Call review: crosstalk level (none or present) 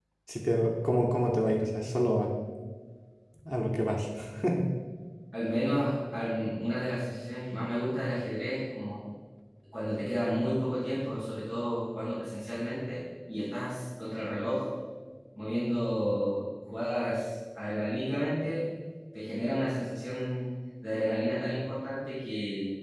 none